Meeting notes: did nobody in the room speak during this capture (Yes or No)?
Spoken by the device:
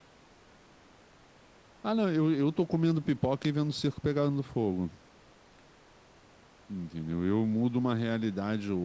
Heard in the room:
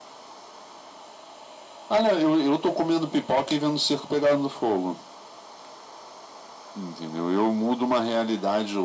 Yes